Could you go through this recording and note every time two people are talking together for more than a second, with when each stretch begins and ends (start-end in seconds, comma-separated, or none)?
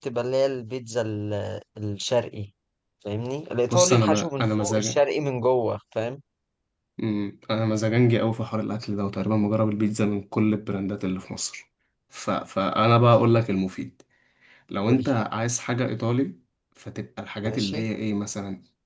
3.7-5.0